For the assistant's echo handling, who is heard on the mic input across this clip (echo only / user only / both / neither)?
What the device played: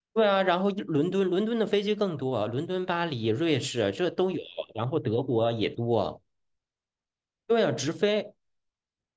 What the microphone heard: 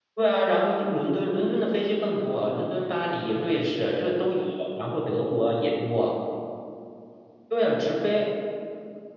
echo only